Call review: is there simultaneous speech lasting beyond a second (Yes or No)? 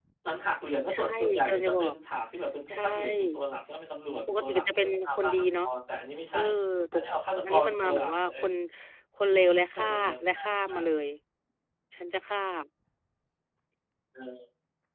Yes